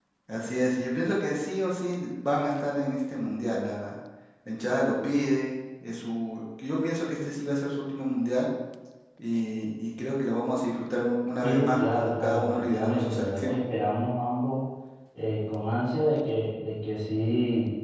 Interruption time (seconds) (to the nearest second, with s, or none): 11 s